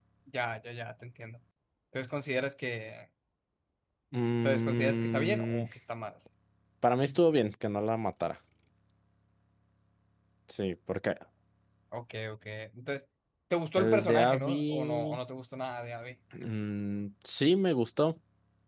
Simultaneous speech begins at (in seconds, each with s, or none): 4.4 s